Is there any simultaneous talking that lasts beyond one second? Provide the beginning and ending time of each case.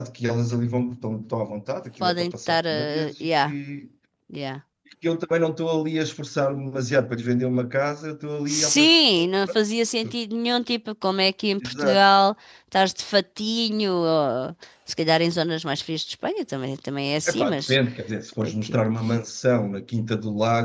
2.0-3.5

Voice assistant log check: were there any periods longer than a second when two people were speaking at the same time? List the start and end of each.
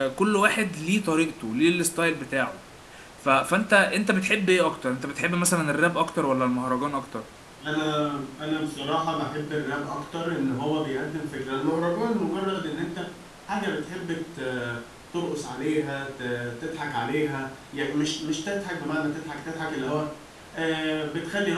none

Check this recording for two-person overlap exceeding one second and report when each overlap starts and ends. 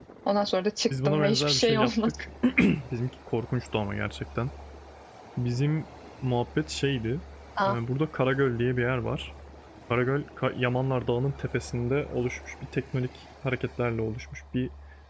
0.9-2.1

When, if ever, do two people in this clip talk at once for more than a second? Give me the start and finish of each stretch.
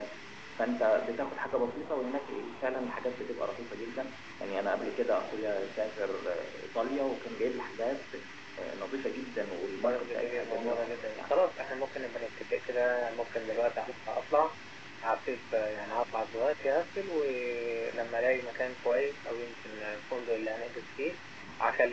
9.8-11.3

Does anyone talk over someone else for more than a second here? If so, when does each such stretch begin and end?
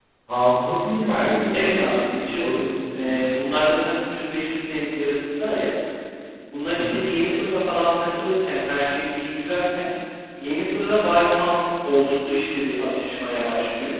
none

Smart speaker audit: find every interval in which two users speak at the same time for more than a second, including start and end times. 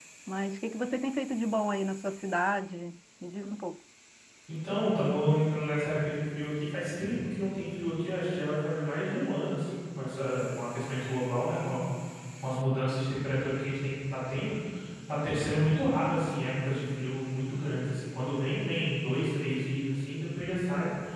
none

